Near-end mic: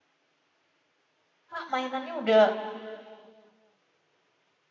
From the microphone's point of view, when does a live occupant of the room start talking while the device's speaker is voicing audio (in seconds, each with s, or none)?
1.5 s